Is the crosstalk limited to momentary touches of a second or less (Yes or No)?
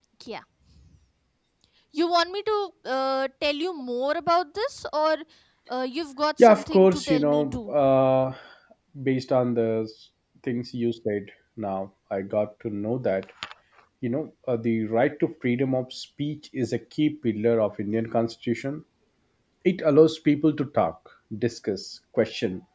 No